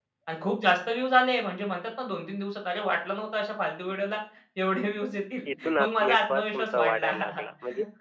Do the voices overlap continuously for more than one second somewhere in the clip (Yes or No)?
Yes